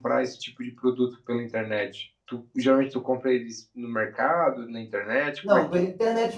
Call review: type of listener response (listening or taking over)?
taking over